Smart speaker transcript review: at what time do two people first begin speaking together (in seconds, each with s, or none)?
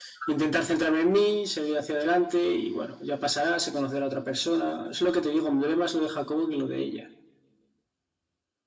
none